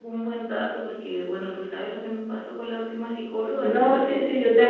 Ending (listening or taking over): taking over